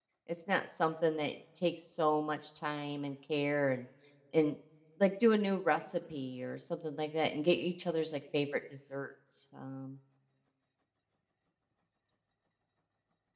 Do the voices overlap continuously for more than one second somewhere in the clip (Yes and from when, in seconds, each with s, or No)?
No